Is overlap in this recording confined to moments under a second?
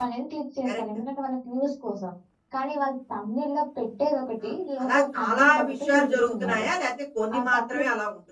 No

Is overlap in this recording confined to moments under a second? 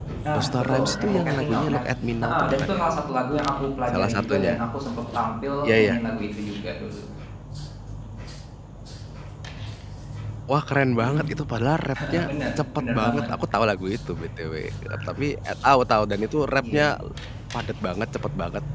No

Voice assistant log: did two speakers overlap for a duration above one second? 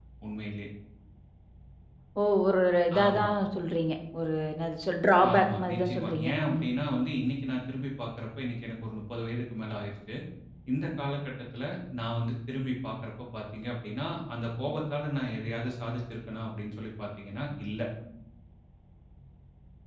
Yes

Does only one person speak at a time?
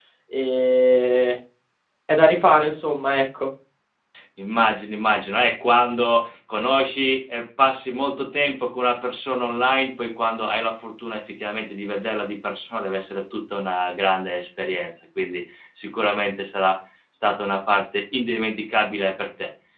Yes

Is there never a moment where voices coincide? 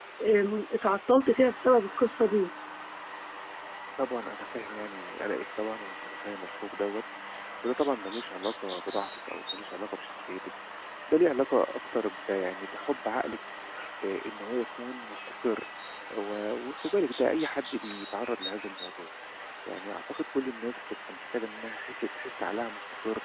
Yes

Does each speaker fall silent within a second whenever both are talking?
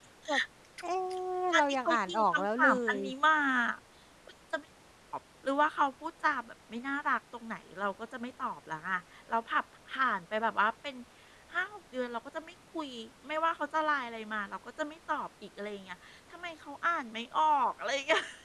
No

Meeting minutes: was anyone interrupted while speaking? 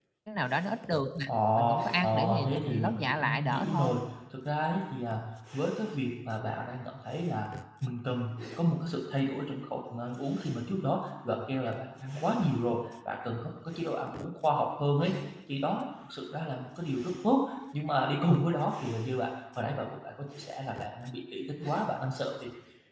Yes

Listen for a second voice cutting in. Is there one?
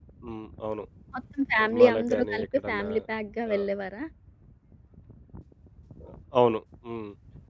Yes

